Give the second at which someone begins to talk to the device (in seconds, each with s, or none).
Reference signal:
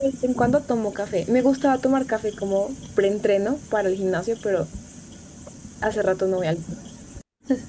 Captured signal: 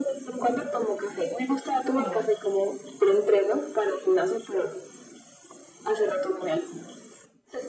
1.8 s